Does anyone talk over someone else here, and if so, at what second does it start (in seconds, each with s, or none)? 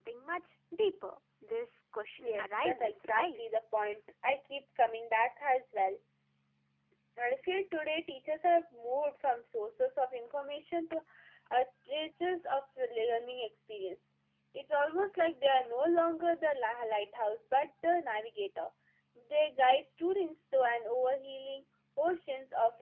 2.2 s